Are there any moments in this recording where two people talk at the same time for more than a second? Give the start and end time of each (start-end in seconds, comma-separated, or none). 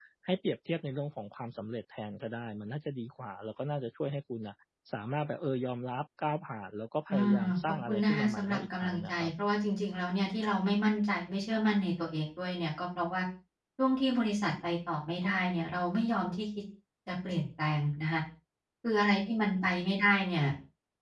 7.1-9.3